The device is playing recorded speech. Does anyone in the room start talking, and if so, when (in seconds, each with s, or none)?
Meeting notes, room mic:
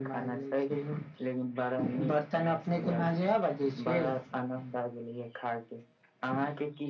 none